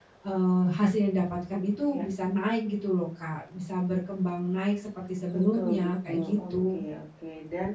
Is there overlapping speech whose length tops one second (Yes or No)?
Yes